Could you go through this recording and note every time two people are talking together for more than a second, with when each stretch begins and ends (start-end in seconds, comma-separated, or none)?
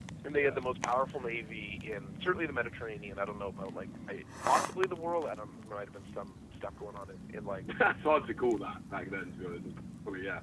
none